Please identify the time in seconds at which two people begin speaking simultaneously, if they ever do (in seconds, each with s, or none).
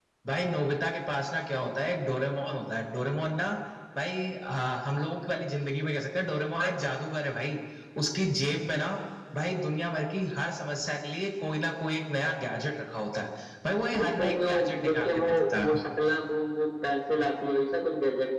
13.9 s